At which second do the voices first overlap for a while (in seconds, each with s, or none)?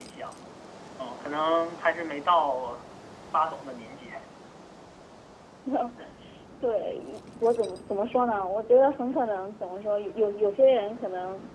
none